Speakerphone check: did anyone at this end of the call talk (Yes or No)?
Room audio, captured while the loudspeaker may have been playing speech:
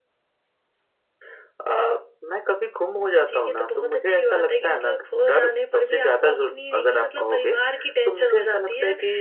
No